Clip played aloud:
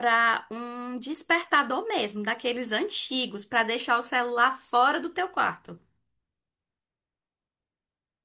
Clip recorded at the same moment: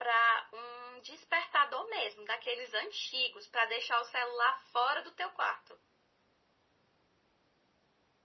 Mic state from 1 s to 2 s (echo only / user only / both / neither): echo only